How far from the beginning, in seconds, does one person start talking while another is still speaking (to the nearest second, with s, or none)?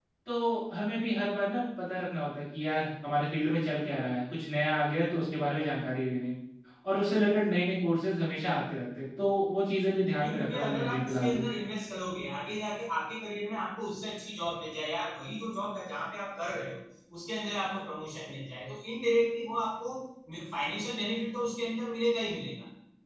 10 s